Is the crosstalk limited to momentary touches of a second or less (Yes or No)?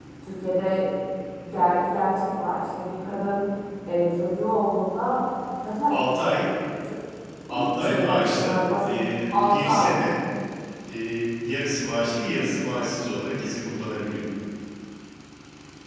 No